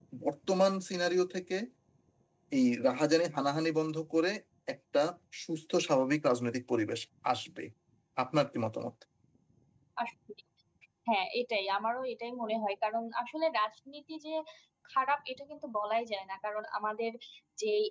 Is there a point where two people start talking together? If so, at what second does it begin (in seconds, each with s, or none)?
none